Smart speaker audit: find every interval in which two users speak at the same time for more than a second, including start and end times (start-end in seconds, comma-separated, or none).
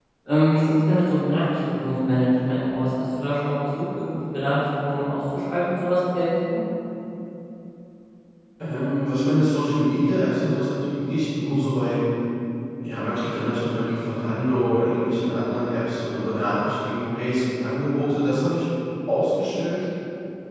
none